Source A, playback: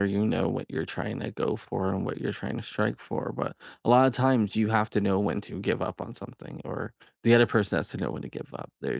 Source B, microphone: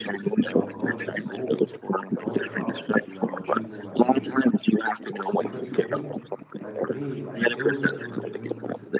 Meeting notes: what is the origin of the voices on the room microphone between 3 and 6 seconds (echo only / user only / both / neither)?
both